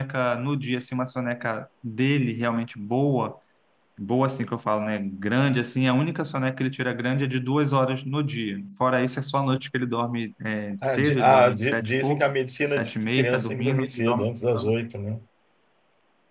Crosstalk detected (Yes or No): Yes